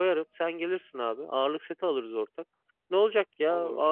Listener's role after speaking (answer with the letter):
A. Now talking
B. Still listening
B